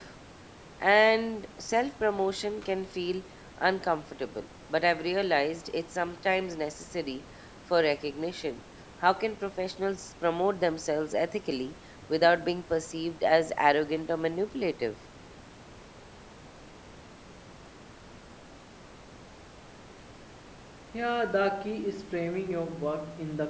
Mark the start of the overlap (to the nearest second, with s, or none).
none